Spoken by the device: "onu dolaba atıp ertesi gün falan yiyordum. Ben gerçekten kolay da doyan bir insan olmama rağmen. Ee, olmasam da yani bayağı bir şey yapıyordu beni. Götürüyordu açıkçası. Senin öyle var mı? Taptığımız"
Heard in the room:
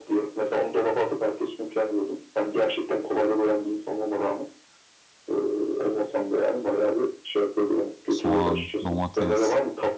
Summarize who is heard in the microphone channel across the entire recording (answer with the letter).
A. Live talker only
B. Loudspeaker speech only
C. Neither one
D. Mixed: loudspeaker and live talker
D